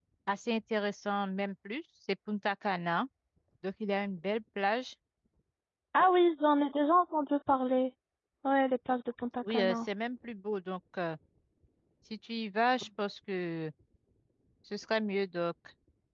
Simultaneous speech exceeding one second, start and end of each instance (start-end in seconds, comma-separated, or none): none